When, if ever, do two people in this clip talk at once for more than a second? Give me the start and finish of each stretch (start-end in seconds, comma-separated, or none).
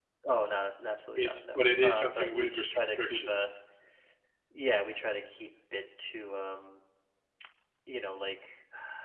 1.2-3.5